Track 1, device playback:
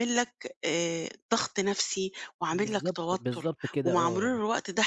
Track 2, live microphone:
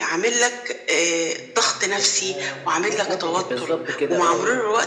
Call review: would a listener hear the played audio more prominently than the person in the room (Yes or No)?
Yes